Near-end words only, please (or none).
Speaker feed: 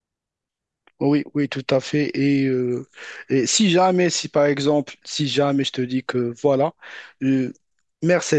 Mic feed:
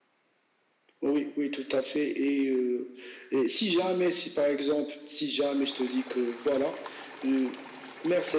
none